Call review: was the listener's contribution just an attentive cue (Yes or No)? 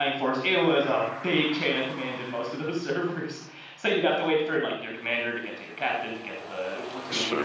No